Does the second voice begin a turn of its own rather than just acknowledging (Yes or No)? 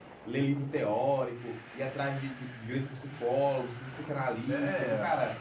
Yes